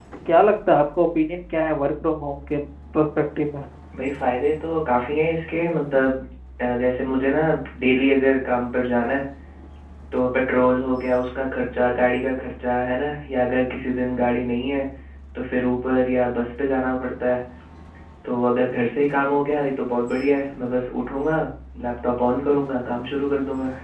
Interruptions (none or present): none